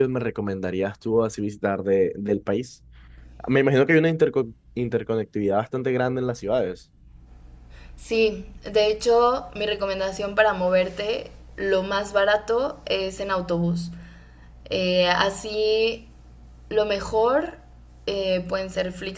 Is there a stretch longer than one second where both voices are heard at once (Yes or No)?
No